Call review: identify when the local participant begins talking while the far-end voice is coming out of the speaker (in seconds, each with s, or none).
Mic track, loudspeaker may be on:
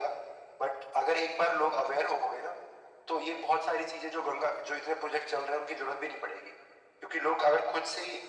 none